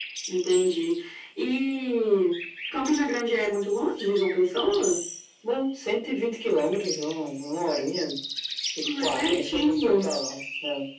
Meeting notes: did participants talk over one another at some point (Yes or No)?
Yes